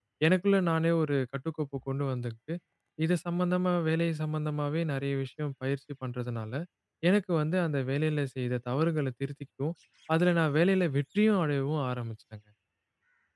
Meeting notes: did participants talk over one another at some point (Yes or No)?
No